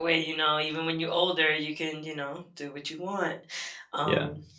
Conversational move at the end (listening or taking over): taking over